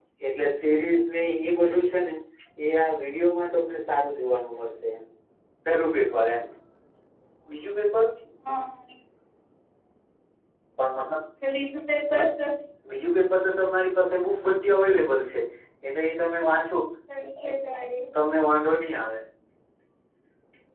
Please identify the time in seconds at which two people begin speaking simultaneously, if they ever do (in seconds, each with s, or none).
none